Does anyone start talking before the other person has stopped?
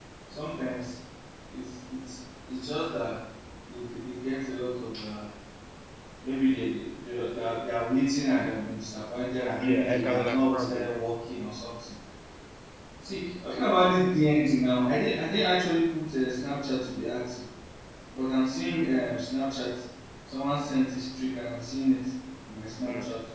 Yes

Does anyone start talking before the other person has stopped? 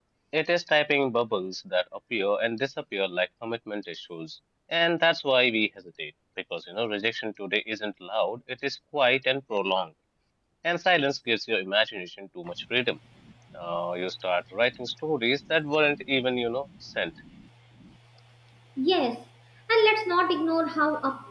No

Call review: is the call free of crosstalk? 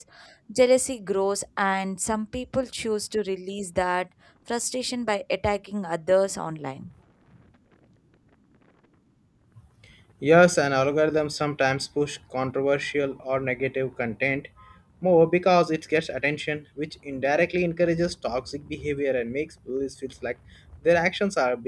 Yes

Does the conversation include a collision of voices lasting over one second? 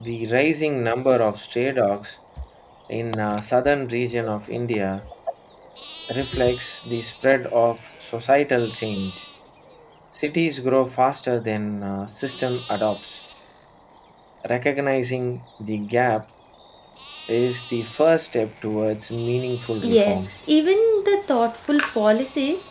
No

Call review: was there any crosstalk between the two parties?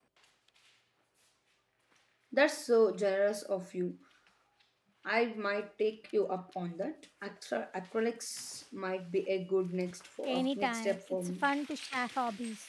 Yes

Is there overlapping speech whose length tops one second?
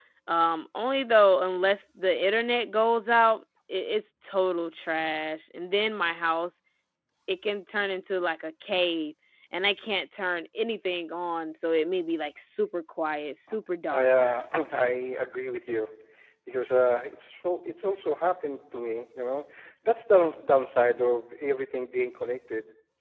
No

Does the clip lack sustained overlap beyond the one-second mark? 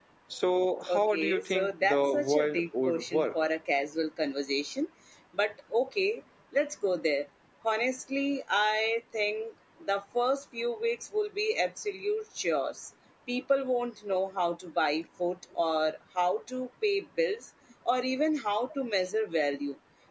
No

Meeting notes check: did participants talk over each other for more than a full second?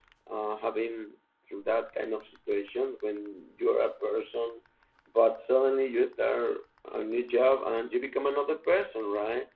No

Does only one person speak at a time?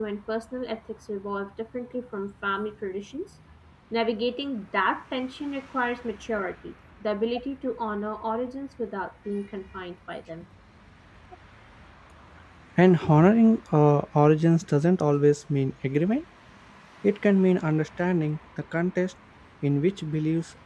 Yes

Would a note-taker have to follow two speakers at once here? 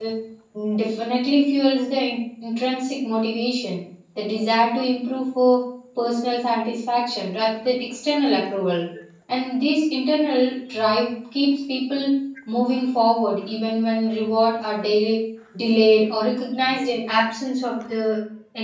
No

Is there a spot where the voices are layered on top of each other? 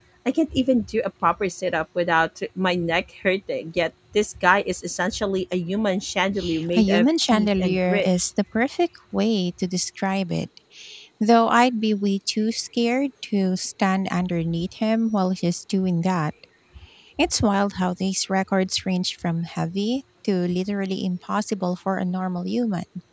Yes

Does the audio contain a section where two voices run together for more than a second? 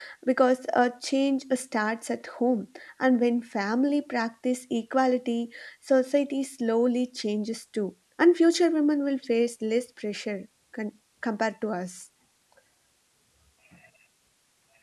No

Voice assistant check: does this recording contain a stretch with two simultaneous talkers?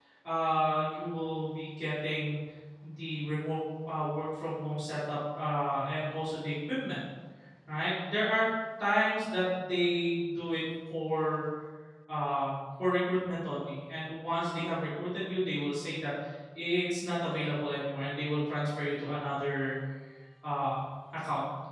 No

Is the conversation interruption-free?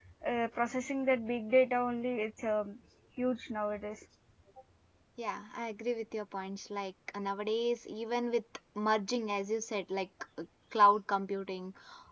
Yes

